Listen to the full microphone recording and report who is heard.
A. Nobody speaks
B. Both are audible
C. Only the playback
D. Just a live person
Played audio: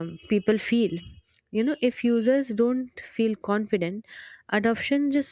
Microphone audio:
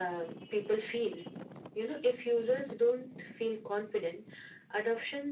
C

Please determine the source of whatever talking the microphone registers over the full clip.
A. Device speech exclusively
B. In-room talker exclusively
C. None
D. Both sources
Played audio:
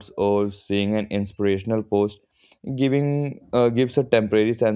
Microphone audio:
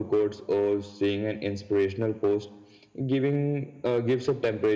A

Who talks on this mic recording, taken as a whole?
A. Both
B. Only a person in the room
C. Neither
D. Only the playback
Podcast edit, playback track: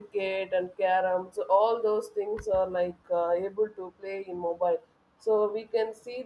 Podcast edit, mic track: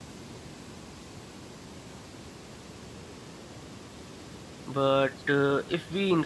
B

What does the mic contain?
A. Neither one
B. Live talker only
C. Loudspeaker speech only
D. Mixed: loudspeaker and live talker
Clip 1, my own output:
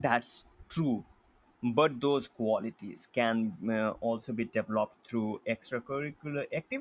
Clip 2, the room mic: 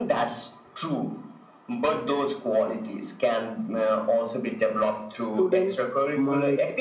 D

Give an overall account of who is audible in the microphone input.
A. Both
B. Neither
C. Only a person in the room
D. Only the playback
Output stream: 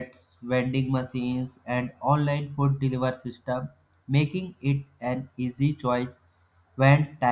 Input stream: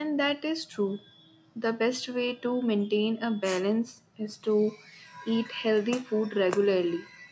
C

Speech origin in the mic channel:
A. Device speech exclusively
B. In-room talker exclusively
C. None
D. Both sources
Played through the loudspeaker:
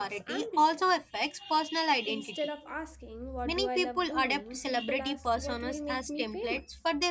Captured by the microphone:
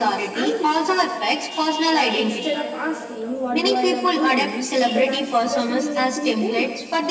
D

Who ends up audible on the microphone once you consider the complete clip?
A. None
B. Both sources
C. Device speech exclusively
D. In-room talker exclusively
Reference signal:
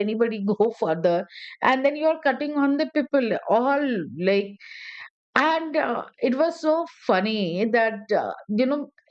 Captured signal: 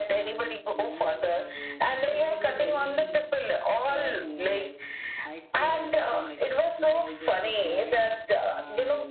B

